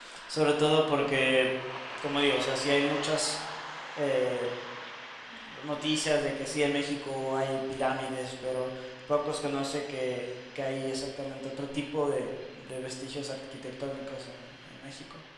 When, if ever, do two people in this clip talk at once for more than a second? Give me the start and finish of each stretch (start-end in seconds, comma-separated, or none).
none